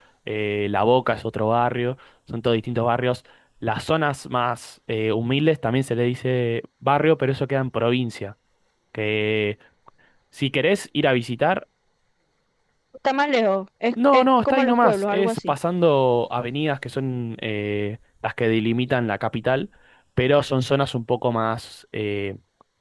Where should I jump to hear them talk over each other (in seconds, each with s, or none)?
14.0 s